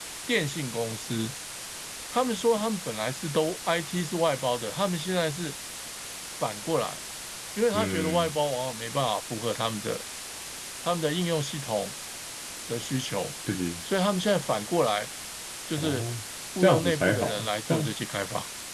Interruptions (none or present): present